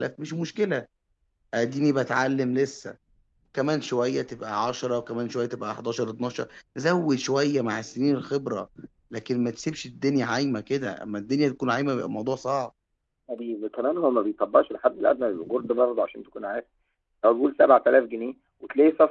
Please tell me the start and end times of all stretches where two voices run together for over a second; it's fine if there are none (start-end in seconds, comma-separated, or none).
none